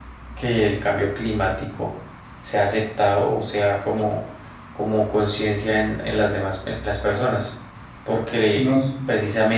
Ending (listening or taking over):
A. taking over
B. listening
B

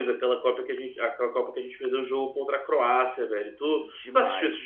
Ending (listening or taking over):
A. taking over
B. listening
A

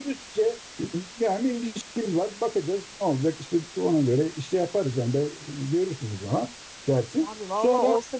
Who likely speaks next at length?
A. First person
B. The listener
B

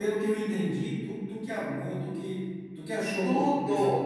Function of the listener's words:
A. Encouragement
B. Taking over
B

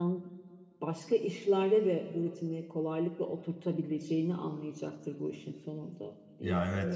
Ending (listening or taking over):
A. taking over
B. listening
A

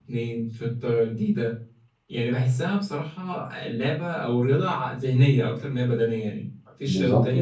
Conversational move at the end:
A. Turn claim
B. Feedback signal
B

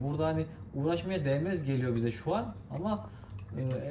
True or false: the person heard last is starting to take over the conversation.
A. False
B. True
A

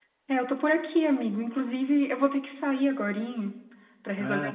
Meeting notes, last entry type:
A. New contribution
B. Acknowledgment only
B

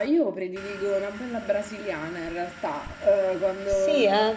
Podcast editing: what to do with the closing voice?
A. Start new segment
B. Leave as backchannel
B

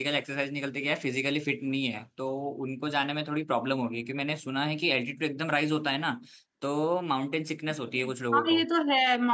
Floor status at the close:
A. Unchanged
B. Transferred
B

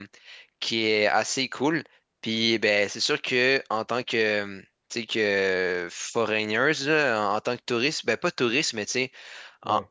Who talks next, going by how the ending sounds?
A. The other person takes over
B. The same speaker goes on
B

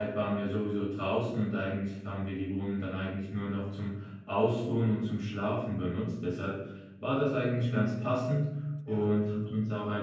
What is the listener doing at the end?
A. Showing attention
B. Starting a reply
A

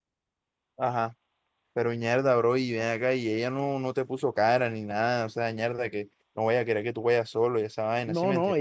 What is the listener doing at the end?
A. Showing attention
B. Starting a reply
B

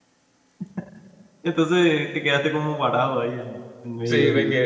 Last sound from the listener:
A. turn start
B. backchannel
A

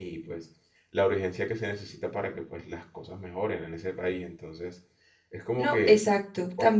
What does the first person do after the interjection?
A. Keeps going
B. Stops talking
B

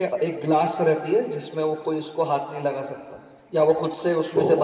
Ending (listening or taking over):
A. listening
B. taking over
A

